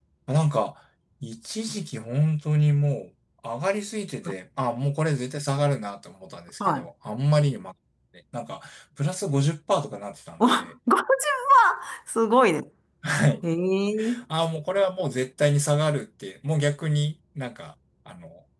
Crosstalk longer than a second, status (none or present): none